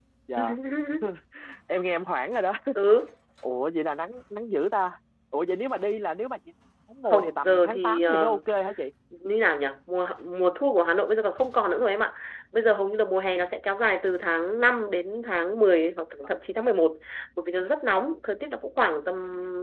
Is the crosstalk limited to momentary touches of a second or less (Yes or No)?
No